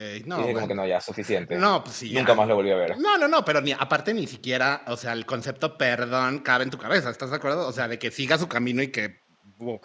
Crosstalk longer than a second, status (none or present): none